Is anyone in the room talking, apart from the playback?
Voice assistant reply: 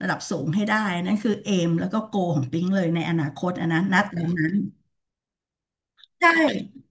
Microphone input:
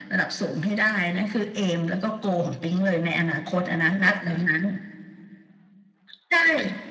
No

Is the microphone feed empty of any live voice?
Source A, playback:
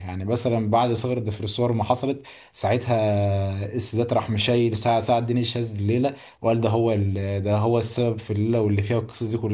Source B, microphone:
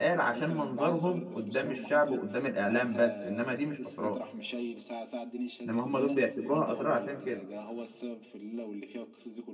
No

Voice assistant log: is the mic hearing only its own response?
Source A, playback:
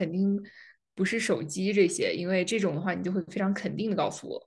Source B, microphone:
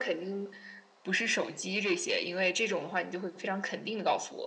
Yes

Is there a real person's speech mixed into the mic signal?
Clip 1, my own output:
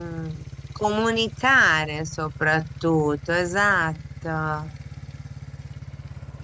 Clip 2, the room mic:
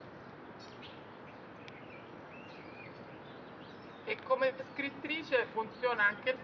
Yes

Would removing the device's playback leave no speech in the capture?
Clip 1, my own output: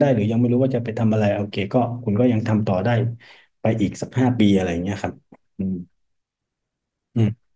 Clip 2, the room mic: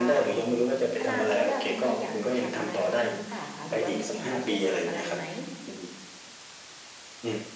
No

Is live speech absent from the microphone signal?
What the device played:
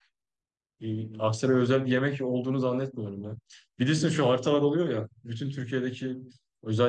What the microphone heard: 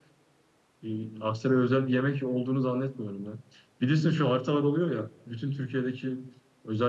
Yes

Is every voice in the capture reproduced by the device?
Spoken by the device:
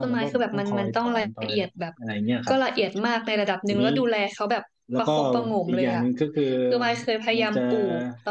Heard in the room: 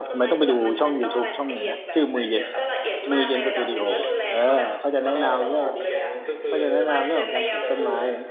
No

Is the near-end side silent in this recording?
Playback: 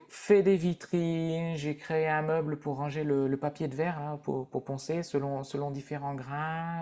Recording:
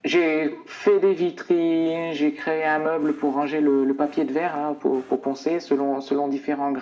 Yes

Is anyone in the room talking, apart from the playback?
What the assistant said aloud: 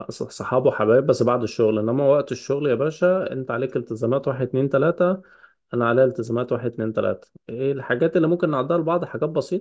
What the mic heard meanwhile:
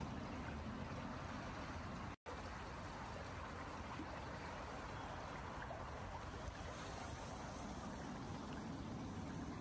No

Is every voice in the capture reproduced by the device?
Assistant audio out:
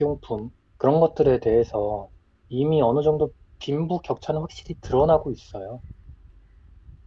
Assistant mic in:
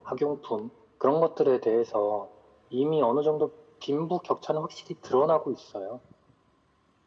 Yes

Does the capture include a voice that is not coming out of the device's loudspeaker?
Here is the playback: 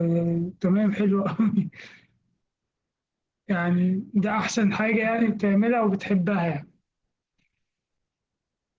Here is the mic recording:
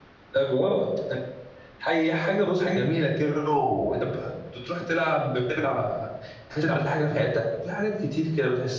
Yes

